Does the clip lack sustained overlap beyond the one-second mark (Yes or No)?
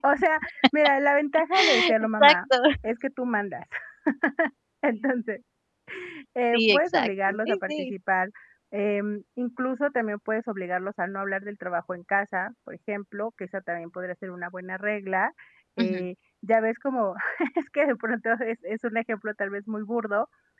No